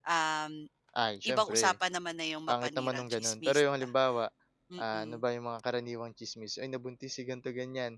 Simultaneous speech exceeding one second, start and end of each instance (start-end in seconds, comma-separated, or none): 2.5-3.9